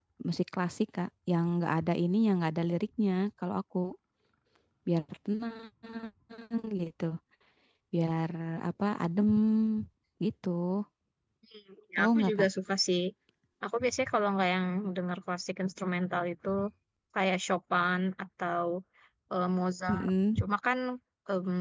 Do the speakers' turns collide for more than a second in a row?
No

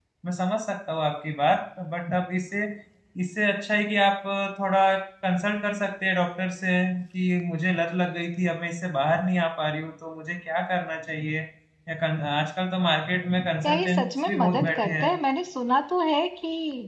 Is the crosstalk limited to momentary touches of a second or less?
No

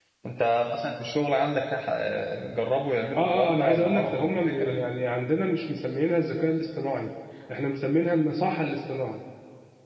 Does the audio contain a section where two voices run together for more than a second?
Yes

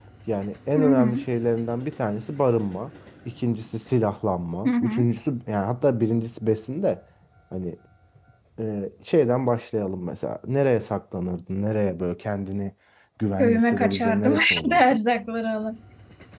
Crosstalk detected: Yes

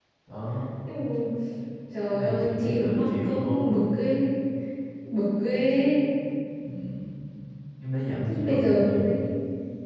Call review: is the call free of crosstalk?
No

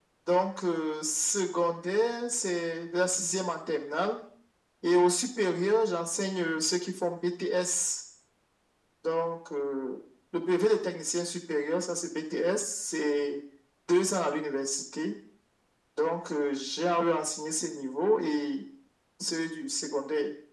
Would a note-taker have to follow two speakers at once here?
No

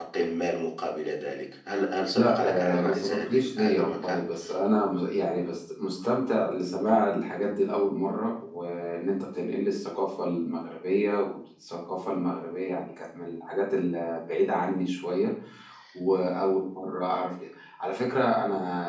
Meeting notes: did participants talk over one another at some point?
Yes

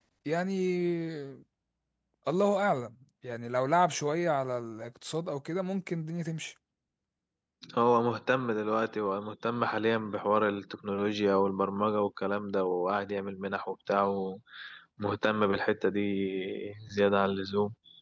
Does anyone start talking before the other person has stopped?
No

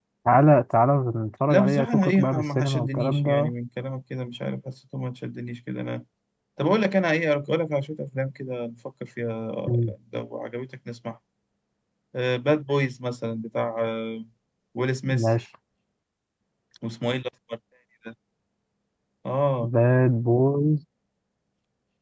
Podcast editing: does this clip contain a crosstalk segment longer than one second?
Yes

